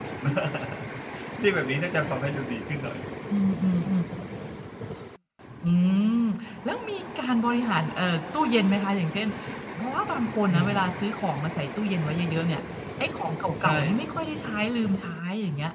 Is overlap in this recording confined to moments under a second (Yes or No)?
Yes